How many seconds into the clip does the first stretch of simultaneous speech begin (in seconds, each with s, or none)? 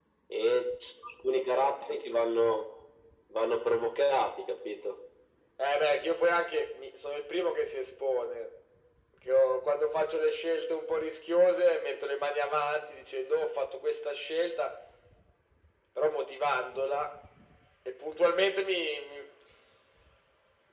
none